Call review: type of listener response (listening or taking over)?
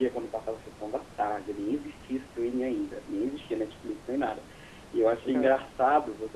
listening